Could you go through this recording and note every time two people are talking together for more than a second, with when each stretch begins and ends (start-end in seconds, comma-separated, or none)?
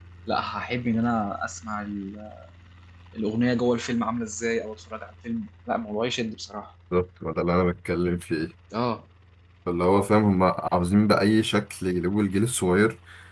none